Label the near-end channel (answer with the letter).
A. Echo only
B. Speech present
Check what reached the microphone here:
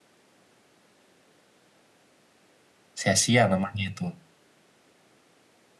B